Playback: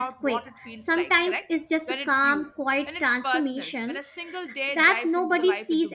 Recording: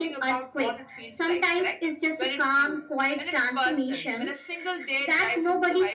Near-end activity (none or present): none